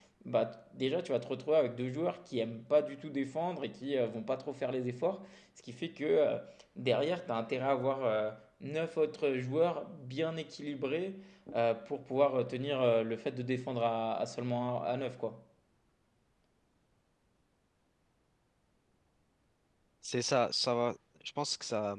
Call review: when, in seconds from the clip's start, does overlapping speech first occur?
none

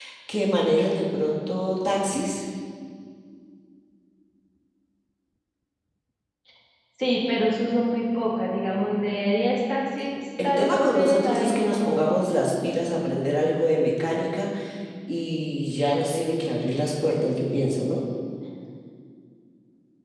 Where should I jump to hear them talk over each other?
10.4 s

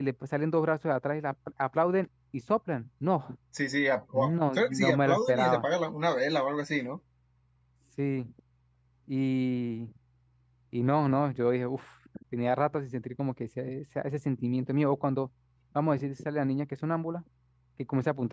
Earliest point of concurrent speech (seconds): 4.1 s

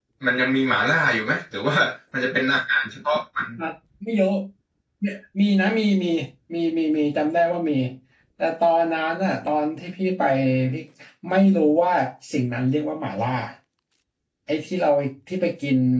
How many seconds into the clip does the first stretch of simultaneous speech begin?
none

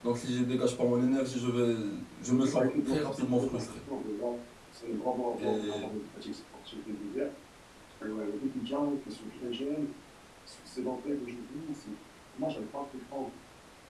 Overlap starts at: 2.3 s

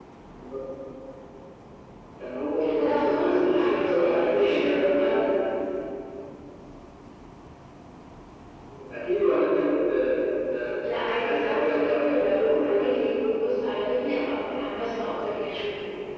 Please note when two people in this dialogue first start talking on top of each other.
2.8 s

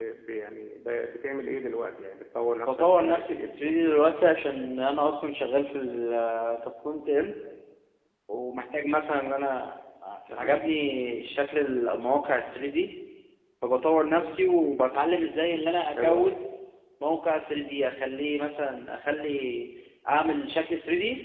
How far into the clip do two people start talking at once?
2.7 s

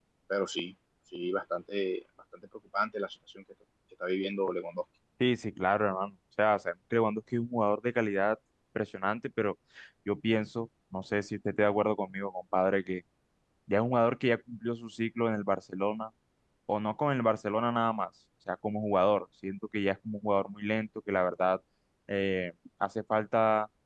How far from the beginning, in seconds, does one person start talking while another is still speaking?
none

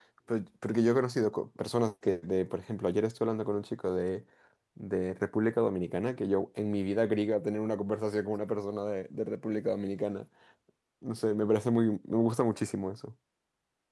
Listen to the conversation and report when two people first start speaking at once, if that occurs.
none

